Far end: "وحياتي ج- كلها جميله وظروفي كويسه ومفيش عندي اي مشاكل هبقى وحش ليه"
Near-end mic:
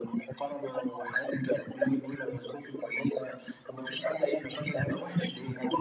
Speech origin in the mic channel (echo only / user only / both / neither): echo only